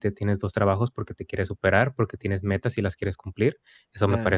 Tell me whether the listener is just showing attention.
Yes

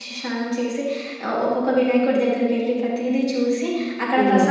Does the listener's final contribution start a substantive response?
No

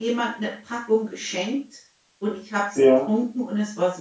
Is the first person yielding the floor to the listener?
No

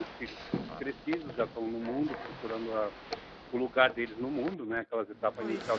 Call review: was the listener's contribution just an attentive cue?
Yes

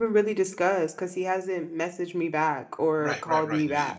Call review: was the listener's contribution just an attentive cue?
No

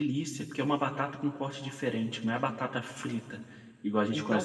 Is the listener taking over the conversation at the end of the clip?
Yes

